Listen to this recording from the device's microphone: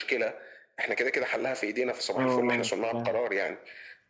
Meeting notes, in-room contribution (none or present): present